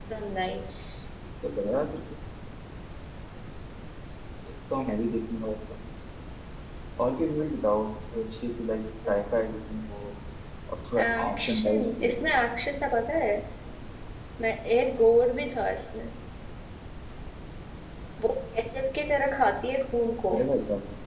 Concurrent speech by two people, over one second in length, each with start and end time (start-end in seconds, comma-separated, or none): 11.0-12.3